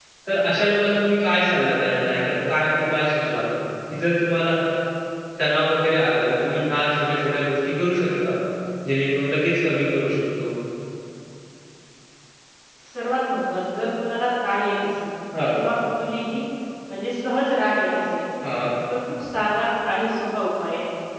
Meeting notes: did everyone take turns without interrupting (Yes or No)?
Yes